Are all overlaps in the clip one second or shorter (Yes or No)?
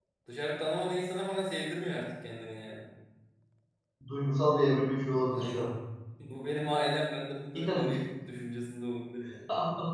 Yes